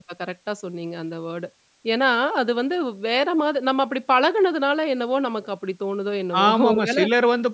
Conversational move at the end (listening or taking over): taking over